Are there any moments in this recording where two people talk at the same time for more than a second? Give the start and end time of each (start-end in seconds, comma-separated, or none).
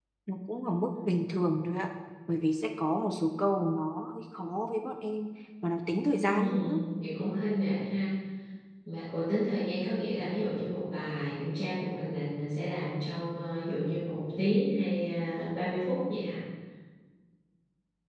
none